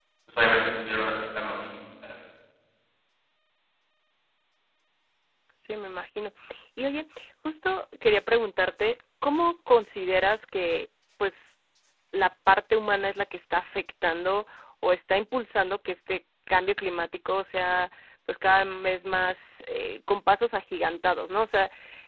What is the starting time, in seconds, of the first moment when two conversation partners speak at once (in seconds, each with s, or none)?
none